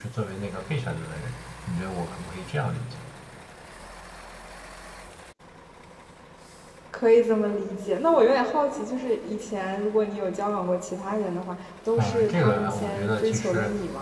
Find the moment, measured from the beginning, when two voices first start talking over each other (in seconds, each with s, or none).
12.0 s